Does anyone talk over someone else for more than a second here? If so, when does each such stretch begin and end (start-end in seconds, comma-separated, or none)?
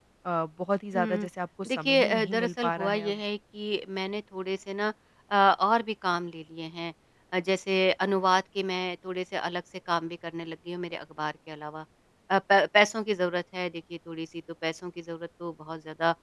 1.7-3.2